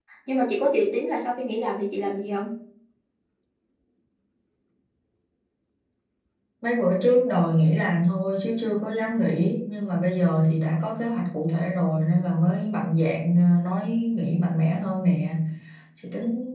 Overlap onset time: none

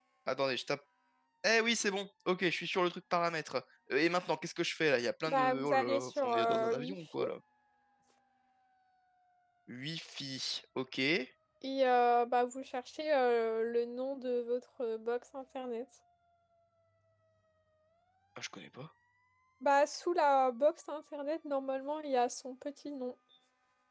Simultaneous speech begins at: 5.2 s

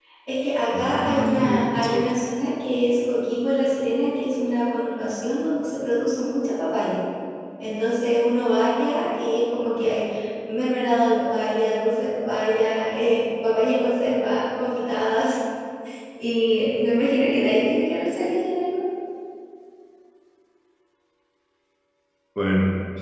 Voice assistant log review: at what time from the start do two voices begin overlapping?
0.7 s

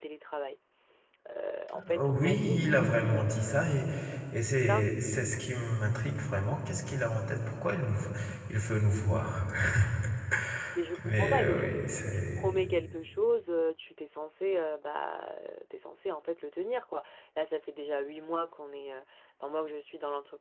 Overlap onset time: 1.8 s

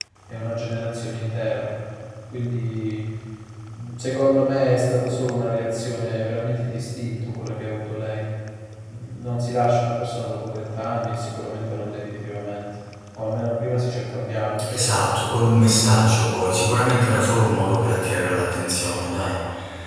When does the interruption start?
none

